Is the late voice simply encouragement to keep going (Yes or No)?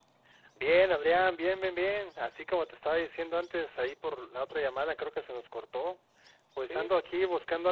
Yes